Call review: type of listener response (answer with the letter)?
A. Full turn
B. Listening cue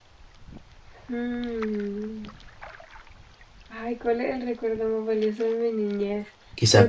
A